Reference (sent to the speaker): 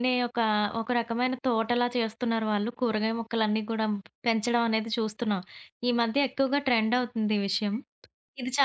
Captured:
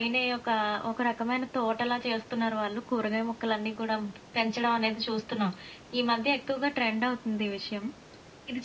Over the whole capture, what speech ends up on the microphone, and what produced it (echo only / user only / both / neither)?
echo only